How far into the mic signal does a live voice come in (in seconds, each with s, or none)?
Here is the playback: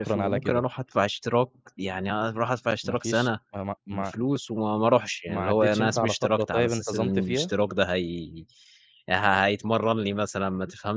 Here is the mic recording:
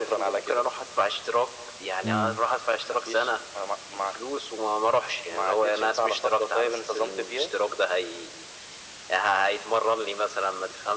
2.0 s